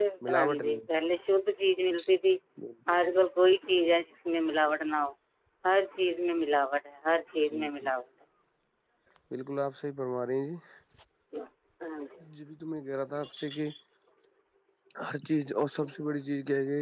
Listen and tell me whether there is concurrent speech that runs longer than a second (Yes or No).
No